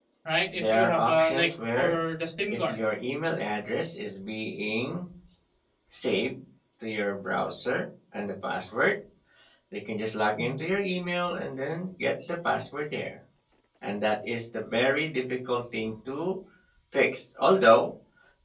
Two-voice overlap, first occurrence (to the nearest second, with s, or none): 1 s